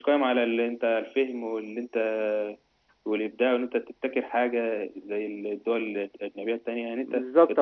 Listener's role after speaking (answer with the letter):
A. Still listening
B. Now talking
B